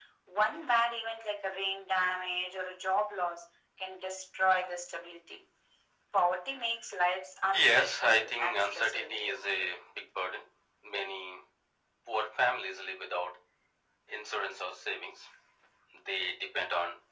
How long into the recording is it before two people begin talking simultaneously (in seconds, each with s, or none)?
7.5 s